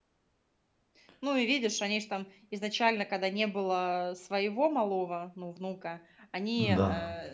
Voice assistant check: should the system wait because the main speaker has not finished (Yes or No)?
Yes